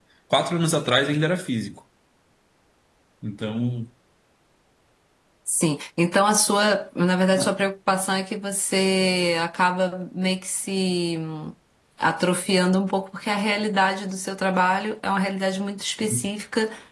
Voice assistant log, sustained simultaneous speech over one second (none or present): none